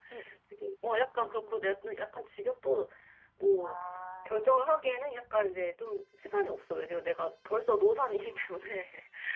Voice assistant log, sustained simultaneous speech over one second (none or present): none